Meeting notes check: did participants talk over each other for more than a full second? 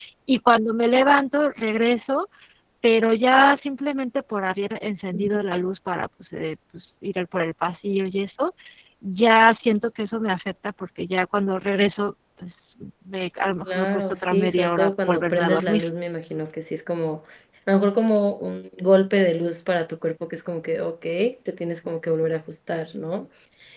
Yes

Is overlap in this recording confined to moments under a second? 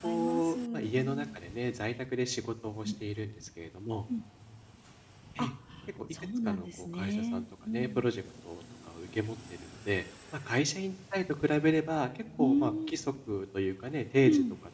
No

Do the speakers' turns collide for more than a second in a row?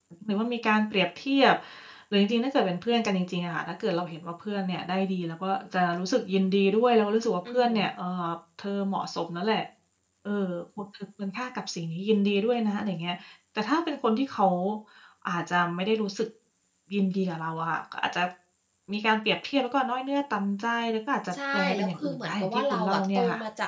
Yes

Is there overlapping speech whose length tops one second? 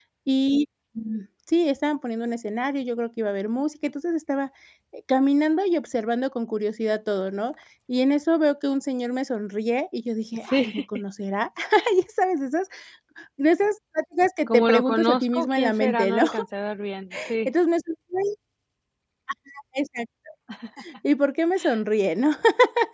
Yes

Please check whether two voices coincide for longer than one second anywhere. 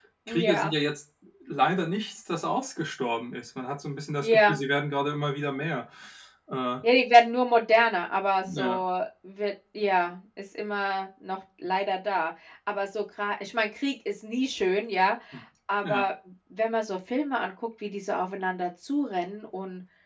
No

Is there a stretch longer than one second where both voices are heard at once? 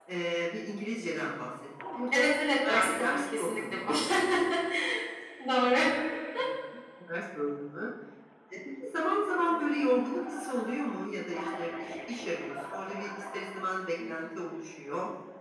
Yes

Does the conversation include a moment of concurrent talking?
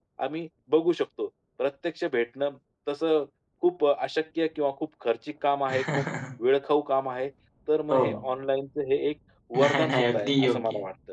Yes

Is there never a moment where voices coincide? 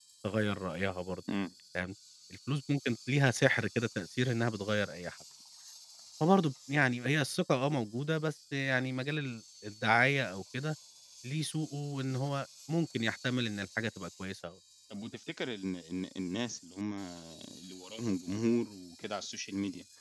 Yes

